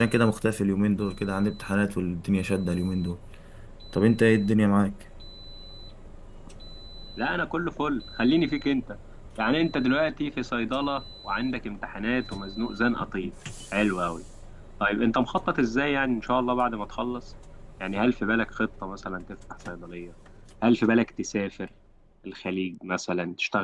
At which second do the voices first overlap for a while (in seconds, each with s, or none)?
none